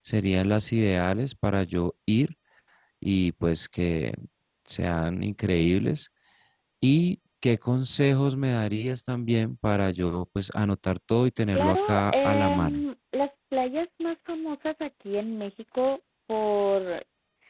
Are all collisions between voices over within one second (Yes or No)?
No